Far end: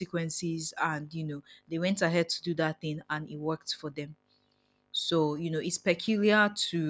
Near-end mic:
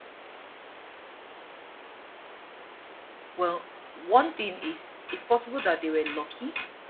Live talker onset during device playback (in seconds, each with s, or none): 3.3 s